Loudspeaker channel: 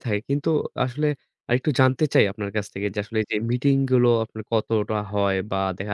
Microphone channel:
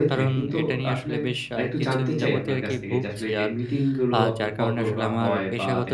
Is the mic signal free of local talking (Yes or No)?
No